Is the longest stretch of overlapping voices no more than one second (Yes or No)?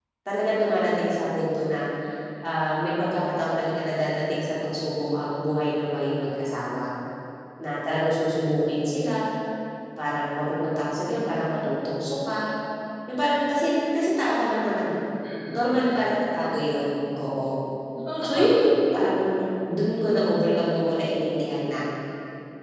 Yes